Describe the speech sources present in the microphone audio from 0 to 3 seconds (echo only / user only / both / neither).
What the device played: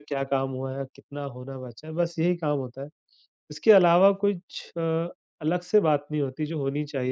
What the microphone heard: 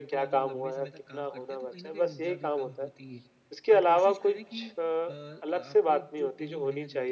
both